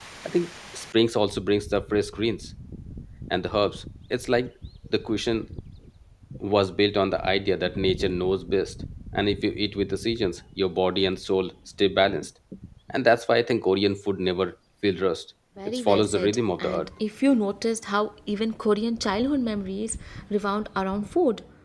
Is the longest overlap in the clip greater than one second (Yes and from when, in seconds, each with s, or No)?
Yes, from 15.6 s